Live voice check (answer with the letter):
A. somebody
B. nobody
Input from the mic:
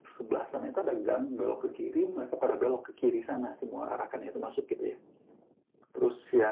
B